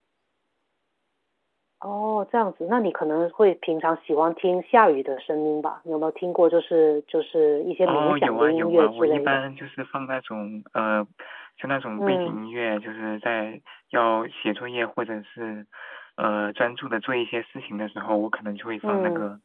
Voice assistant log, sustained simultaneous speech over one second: present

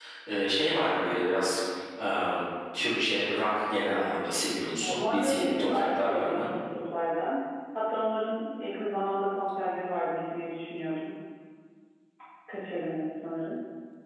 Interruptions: present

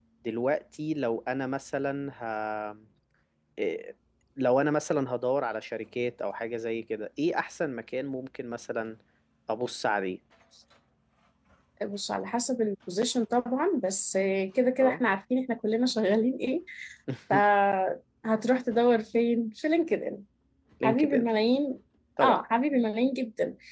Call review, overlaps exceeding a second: none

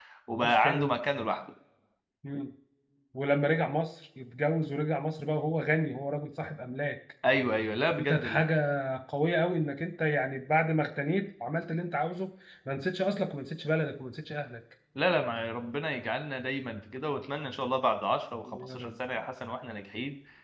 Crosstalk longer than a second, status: none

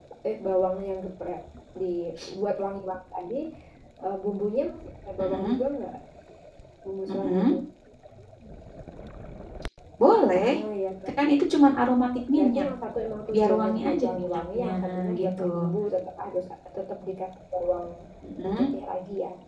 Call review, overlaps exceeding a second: present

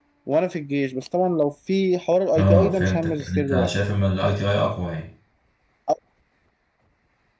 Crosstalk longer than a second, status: present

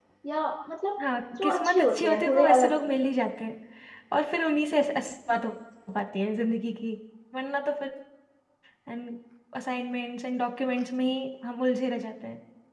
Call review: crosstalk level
present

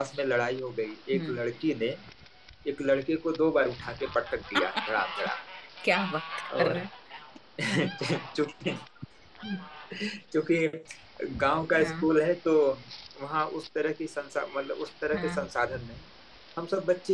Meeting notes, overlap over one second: none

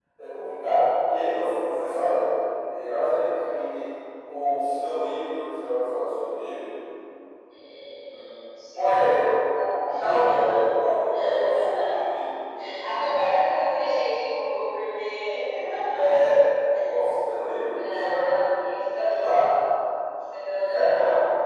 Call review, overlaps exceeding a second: present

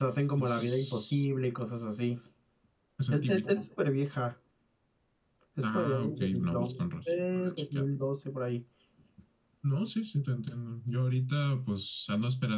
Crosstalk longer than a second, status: present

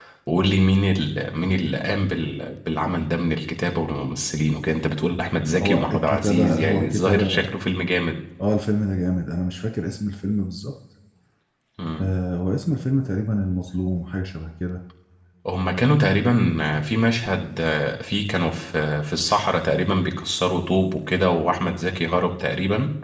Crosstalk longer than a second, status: present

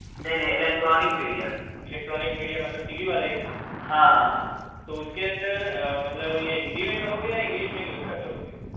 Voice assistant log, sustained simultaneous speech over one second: none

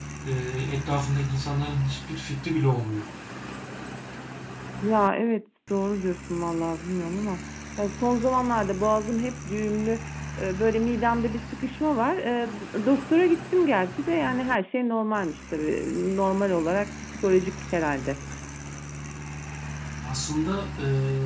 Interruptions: none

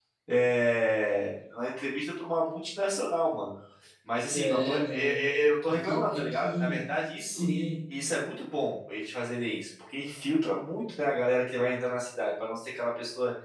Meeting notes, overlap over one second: present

